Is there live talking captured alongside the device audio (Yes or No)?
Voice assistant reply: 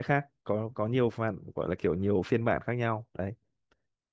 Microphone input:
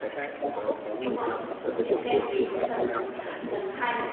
Yes